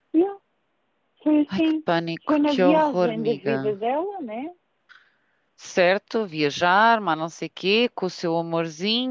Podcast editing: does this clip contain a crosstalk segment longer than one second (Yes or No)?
Yes